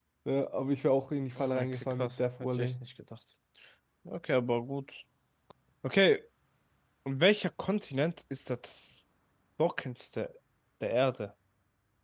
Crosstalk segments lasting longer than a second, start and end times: 1.4-2.7

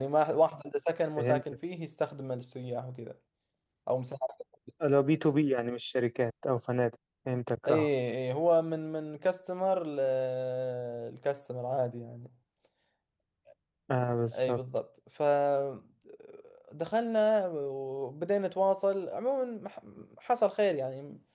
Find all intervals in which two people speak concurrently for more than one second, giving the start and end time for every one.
none

